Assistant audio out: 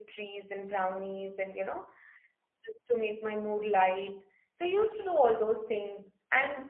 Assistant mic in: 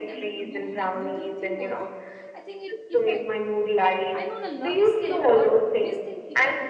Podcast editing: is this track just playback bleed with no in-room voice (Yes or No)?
No